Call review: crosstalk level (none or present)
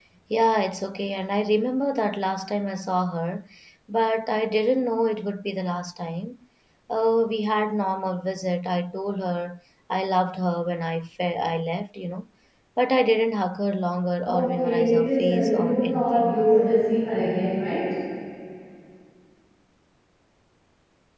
present